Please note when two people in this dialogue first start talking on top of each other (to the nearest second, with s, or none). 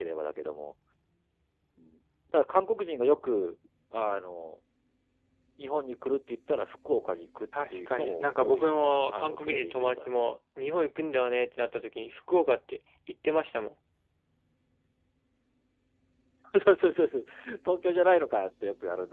8 s